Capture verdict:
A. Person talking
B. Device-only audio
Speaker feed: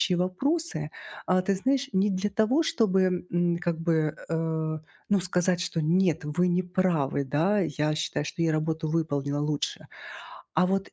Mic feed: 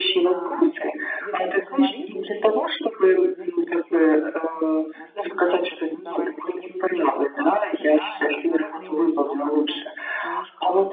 A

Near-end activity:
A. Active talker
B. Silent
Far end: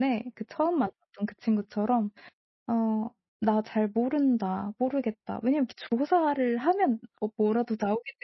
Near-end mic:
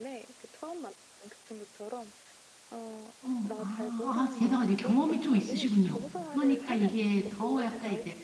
A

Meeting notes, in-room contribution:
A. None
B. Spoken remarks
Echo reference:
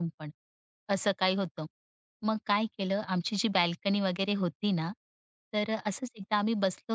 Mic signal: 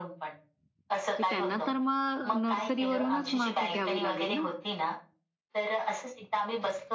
B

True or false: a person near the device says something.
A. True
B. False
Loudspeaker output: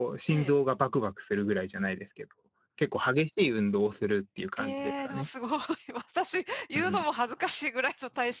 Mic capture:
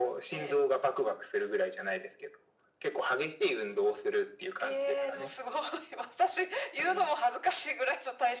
B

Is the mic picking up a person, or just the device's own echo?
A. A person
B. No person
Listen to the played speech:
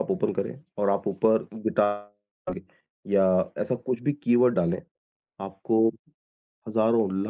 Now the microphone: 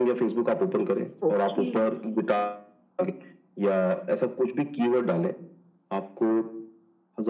A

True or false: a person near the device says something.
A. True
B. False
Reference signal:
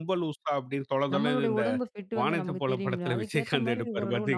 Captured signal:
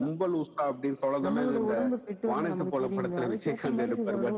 B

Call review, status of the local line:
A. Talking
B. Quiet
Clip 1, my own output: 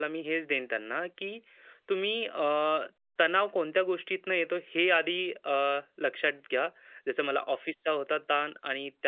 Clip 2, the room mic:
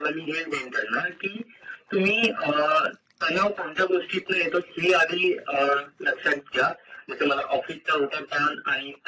B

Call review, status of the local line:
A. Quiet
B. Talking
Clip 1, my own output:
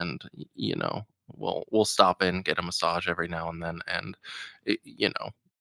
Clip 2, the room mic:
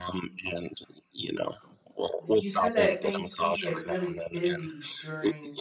B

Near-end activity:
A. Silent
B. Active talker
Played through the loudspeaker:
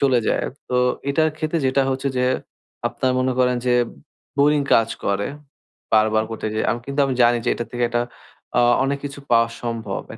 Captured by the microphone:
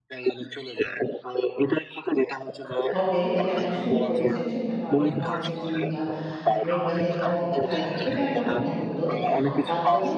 B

